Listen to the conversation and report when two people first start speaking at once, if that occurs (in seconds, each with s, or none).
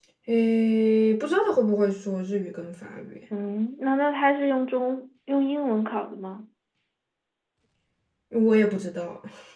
none